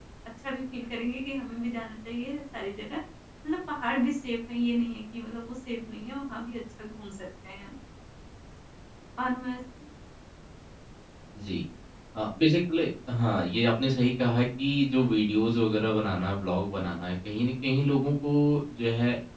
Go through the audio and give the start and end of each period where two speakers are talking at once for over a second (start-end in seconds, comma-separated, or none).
none